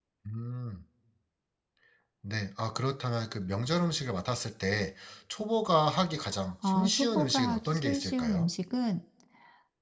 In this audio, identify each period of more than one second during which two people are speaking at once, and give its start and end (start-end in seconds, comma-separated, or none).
6.6-8.5